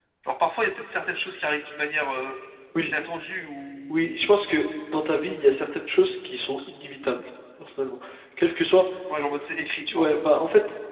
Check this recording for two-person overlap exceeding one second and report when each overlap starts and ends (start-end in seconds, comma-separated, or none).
none